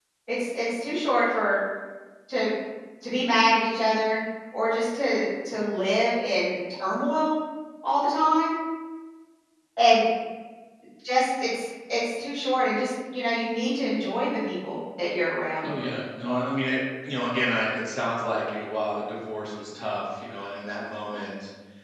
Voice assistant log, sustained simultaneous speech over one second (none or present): none